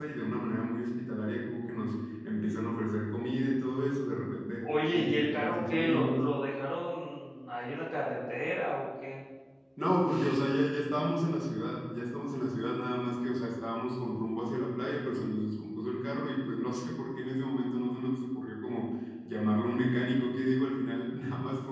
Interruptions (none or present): present